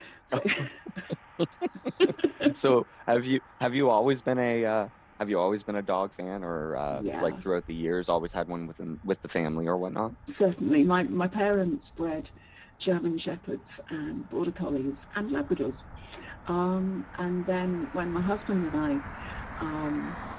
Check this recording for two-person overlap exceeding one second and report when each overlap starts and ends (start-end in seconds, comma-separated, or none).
none